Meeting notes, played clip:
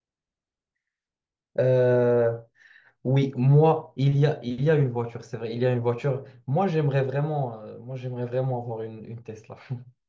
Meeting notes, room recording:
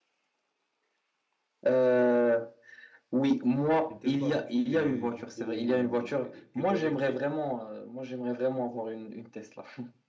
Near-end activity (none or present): present